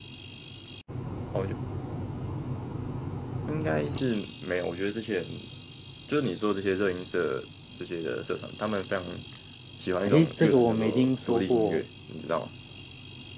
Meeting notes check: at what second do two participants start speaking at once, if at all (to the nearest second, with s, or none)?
10 s